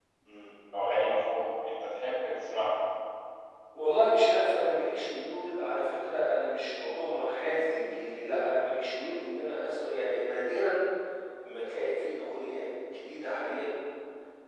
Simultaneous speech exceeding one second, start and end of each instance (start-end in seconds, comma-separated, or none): none